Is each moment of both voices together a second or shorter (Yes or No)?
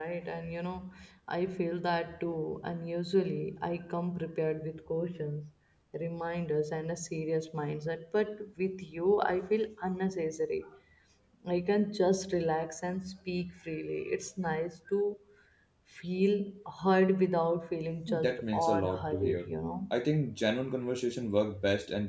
No